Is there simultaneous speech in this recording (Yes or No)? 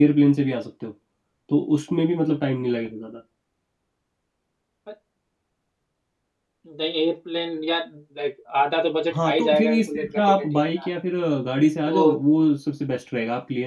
Yes